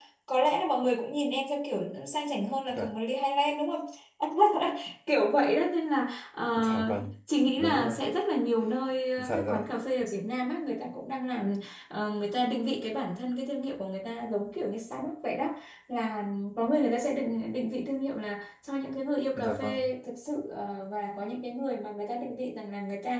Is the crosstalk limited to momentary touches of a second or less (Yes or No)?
Yes